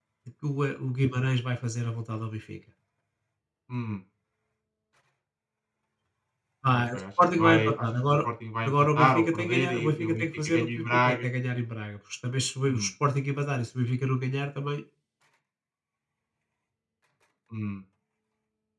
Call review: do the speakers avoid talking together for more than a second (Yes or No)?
No